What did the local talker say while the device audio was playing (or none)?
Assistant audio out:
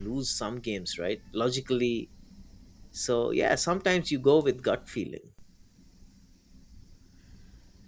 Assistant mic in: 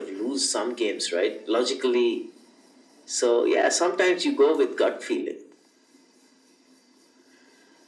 none